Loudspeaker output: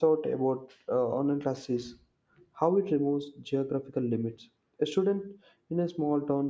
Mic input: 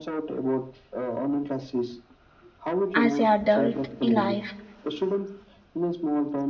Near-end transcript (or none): as an adult in life.